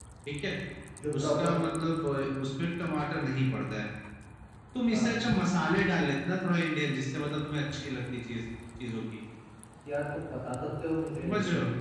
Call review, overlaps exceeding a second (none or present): none